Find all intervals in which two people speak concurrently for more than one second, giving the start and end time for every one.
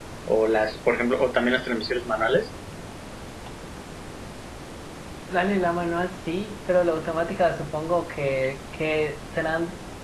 none

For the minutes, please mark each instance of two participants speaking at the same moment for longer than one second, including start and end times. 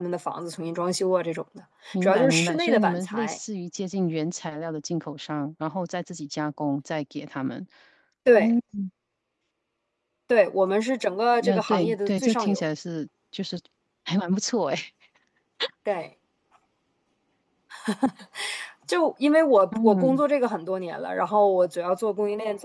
2.0-3.4, 11.4-12.6

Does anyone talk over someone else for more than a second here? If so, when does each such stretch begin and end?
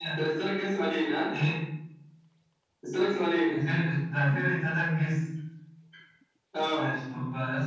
none

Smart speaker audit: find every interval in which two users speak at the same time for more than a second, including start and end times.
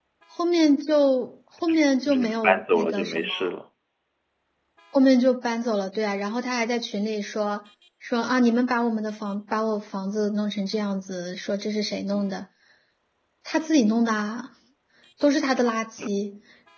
2.1-3.5

